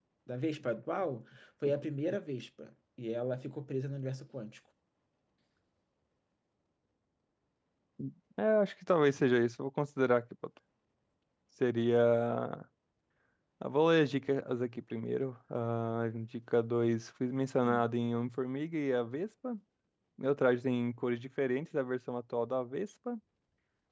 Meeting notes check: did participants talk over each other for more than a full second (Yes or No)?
No